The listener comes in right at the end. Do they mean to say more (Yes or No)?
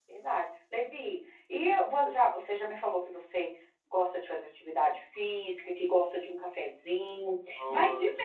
No